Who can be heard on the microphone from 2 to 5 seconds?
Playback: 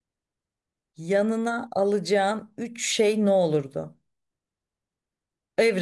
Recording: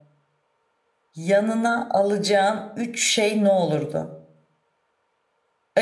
echo only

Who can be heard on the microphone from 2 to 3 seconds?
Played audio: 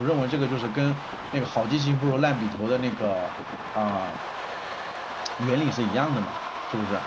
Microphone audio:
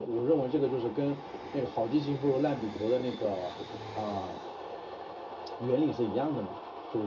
echo only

